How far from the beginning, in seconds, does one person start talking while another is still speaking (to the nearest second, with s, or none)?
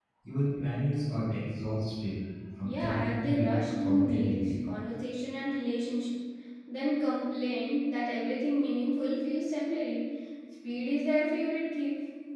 3 s